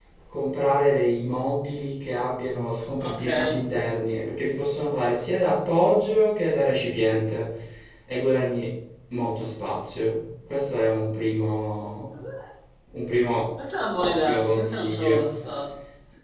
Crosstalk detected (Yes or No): Yes